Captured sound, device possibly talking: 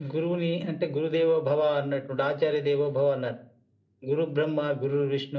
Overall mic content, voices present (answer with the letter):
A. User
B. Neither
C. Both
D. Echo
D